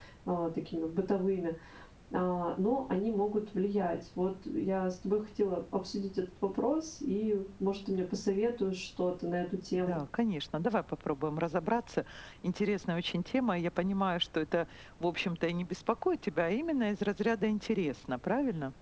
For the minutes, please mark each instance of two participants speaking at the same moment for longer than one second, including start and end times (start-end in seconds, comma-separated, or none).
none